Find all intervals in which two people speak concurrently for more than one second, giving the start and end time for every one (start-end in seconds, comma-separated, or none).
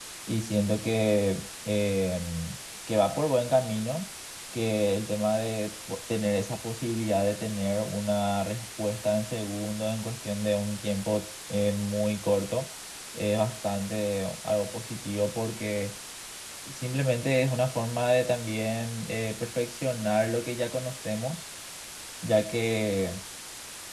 none